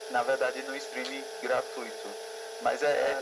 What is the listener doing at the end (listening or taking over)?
listening